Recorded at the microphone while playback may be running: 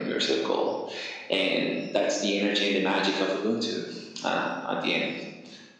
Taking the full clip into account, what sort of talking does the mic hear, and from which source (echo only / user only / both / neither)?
echo only